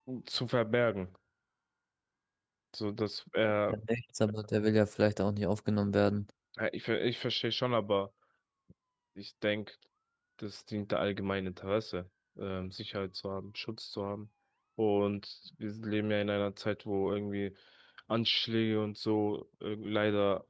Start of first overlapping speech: none

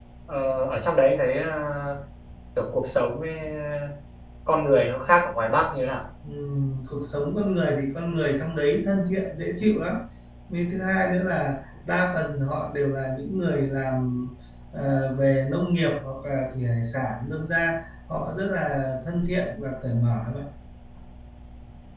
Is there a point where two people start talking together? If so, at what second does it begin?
none

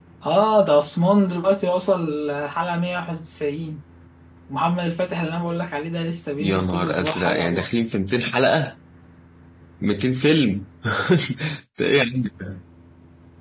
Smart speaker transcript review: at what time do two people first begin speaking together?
6.4 s

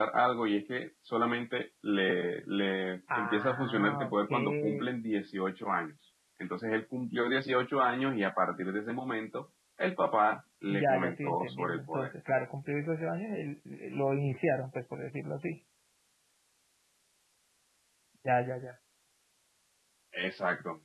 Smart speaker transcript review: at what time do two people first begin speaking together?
3.1 s

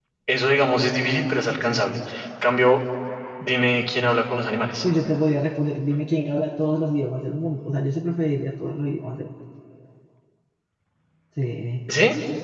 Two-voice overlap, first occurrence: none

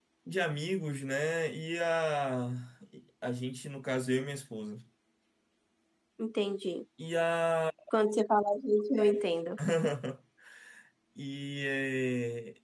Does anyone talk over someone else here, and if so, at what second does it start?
none

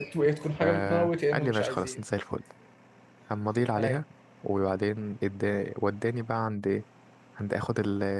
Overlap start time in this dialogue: 0.5 s

